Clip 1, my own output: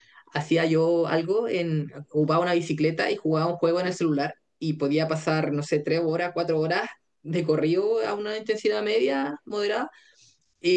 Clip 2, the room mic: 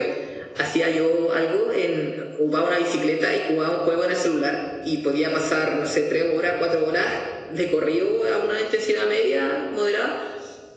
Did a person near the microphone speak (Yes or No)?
No